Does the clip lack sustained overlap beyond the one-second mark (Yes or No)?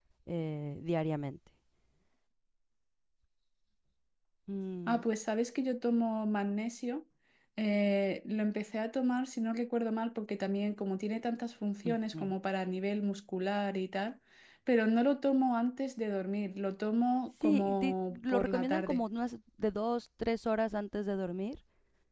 No